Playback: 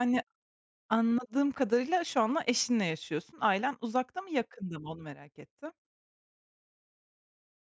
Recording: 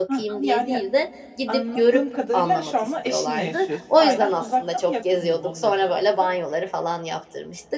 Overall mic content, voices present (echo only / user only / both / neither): both